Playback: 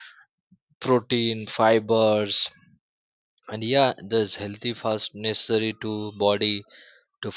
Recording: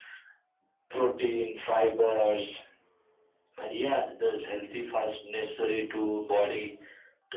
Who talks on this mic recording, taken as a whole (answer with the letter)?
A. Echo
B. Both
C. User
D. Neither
A